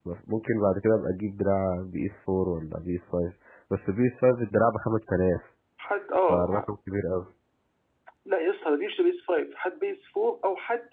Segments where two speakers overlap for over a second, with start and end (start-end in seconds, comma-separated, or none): none